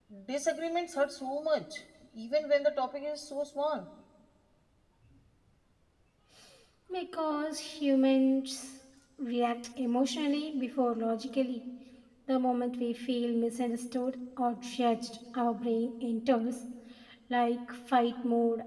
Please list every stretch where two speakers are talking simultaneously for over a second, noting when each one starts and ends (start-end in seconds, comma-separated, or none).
none